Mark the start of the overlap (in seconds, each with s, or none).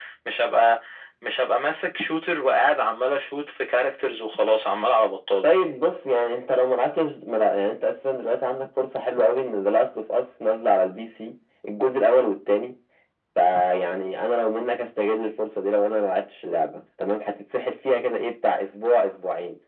none